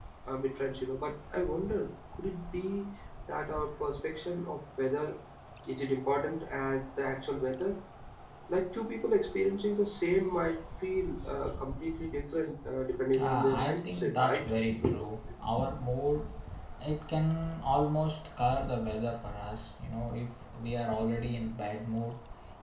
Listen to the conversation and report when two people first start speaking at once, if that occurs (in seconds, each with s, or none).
13.1 s